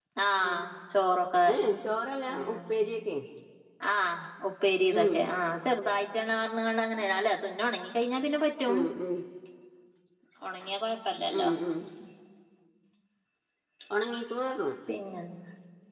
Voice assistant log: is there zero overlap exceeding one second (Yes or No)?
Yes